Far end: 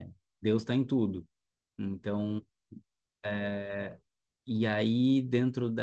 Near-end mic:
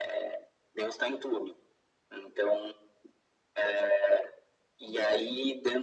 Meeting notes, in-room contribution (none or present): none